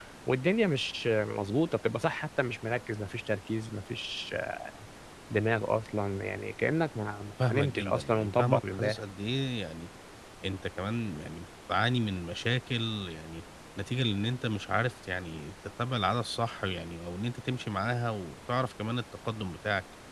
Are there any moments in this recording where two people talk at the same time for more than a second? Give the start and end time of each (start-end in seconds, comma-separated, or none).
7.5-9.0